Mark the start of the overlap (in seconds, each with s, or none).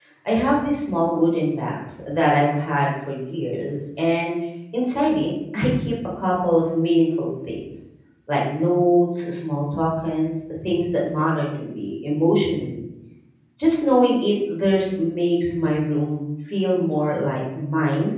none